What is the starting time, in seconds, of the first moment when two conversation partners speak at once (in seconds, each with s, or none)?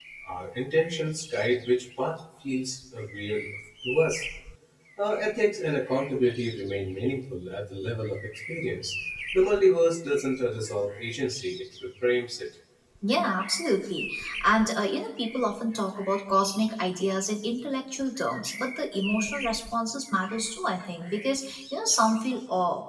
none